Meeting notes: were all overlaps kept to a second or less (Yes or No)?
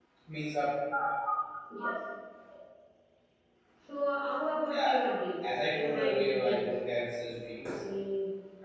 No